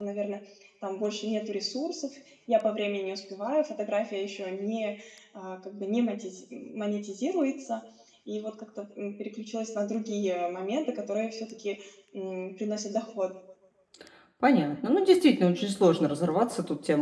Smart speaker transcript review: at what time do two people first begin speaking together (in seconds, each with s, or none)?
none